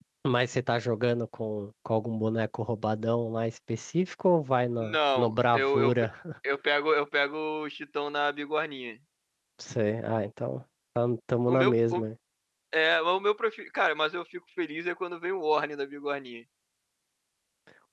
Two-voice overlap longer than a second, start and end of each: 4.8-6.1

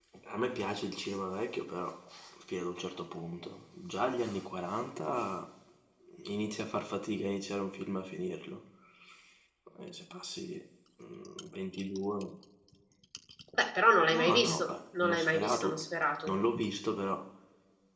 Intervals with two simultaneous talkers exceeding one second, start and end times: 14.1-15.8

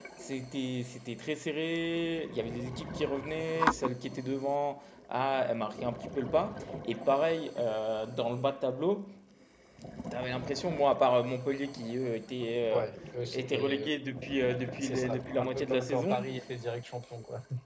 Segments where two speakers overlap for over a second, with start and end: 14.8-16.2

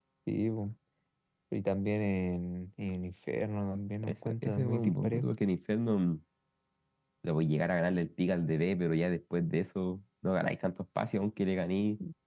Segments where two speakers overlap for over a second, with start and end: 4.0-5.2

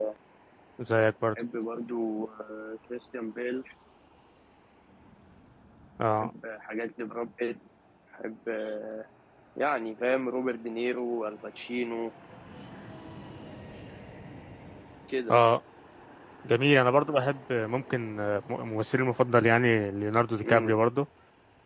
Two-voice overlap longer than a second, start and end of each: none

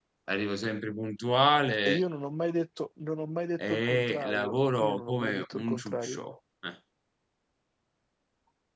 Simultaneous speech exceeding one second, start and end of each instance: 3.7-6.2

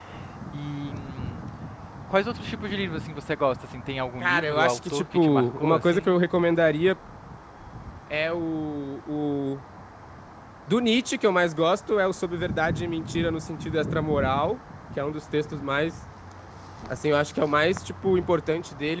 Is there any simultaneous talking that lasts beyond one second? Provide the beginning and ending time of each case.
4.2-6.1

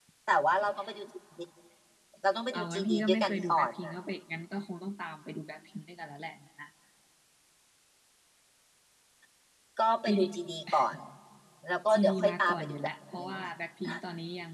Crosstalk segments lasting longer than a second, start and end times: 2.5-4.0, 11.9-13.4

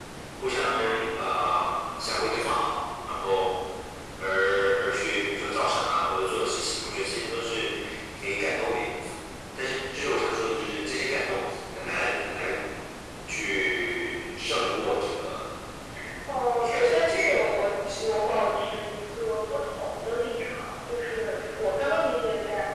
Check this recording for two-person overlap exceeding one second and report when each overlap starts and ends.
16.6-18.2

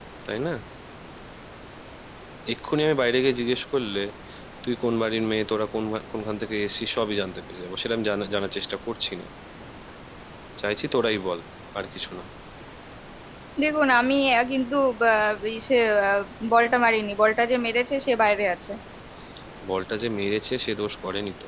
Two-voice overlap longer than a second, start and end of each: none

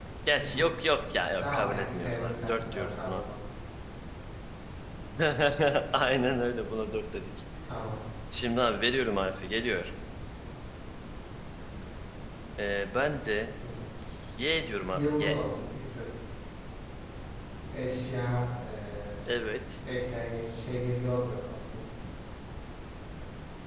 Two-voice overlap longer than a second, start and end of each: 1.4-3.2

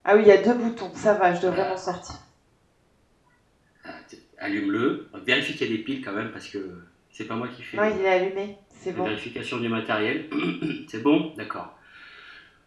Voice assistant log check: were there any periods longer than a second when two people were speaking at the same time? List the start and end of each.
none

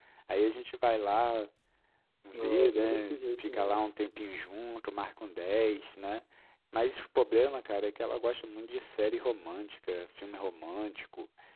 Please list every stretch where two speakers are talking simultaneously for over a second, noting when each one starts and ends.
2.3-3.8

